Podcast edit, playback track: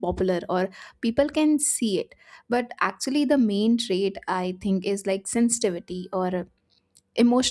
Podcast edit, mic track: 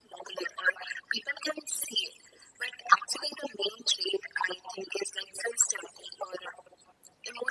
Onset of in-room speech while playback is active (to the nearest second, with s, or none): none